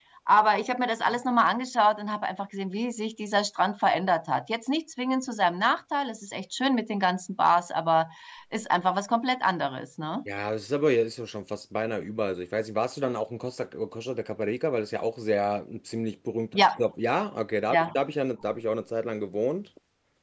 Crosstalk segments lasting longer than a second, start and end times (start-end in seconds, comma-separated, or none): none